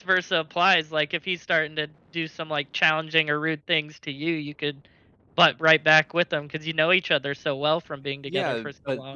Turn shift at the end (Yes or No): Yes